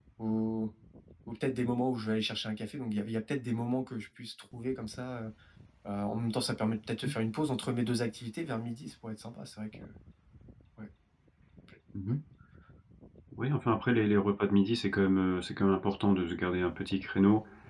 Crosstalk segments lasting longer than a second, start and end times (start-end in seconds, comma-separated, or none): none